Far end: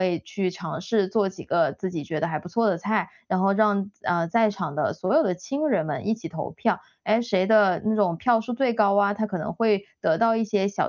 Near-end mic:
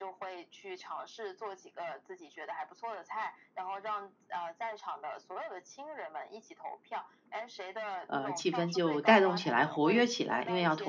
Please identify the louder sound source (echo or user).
user